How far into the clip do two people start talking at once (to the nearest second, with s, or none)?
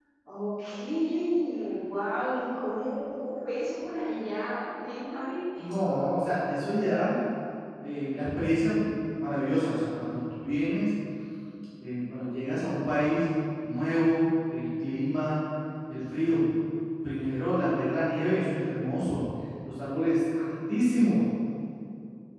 none